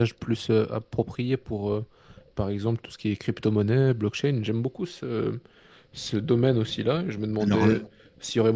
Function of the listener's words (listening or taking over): listening